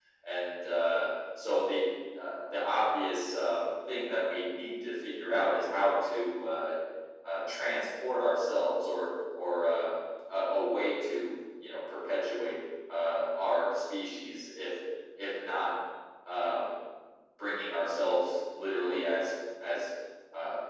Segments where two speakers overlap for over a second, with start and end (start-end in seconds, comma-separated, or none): none